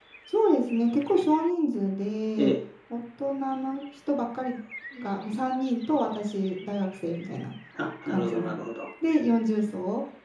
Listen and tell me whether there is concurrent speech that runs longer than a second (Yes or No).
No